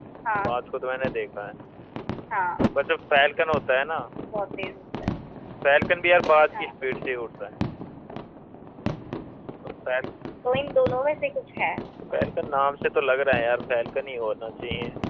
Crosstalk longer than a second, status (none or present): none